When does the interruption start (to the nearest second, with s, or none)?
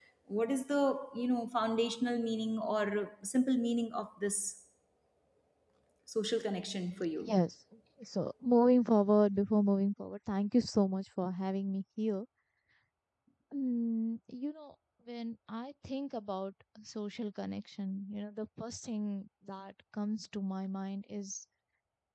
none